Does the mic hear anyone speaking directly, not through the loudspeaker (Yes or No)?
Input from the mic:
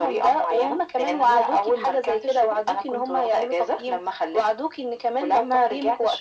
No